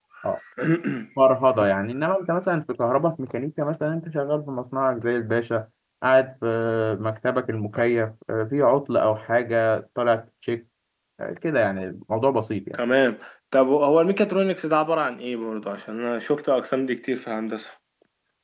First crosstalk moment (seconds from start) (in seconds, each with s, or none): none